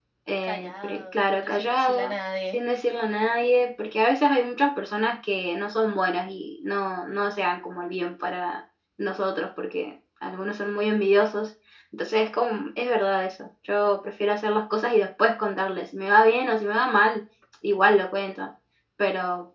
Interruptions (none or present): present